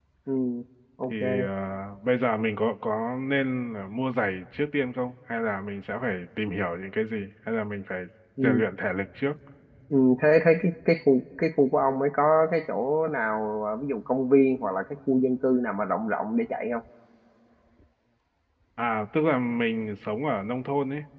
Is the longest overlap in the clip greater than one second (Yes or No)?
No